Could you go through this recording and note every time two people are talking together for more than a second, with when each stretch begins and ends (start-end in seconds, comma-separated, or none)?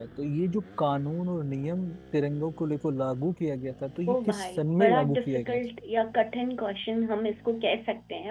4.1-5.6